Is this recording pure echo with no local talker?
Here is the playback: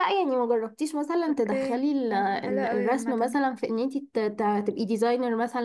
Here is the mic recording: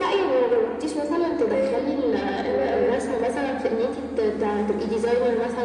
Yes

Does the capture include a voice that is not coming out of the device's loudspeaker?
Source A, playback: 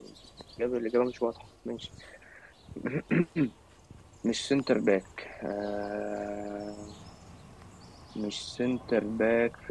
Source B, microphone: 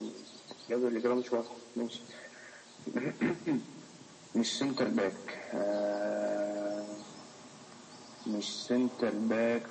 No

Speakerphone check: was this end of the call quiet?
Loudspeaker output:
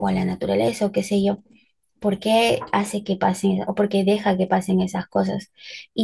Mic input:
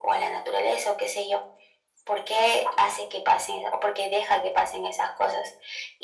Yes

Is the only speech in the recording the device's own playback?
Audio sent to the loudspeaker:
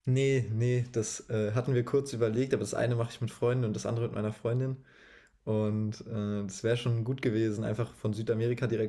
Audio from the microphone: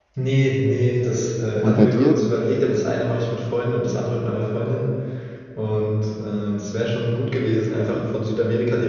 No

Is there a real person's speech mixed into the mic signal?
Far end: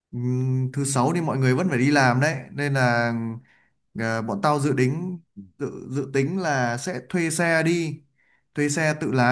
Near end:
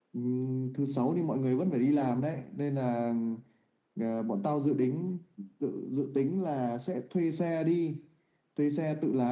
No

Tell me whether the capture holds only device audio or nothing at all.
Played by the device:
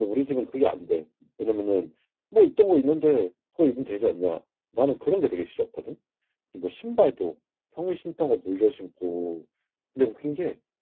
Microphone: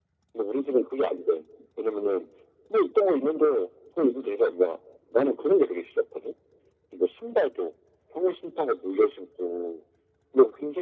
Yes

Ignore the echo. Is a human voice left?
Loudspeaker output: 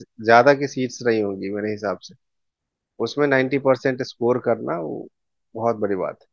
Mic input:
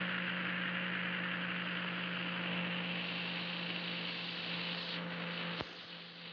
No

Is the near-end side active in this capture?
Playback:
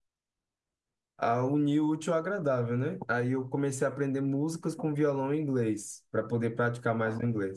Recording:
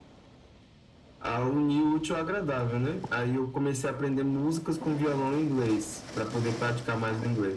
No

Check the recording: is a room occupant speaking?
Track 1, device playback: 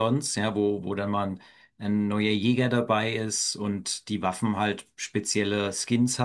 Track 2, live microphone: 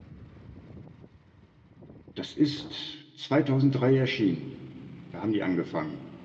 Yes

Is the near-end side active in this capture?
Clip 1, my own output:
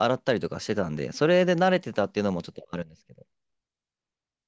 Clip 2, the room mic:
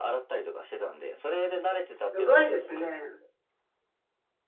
Yes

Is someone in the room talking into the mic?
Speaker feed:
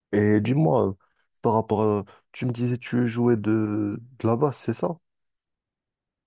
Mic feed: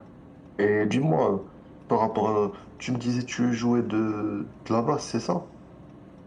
No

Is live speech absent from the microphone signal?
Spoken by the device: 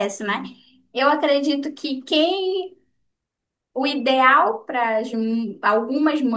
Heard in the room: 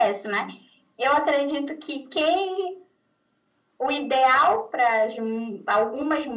Yes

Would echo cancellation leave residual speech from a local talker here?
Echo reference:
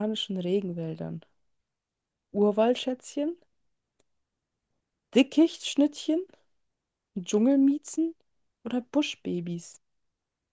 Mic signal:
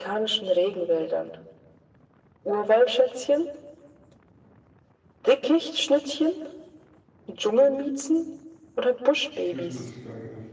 Yes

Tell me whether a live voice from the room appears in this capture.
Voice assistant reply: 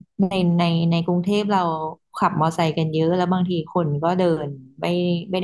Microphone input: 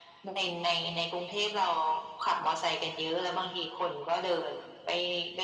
No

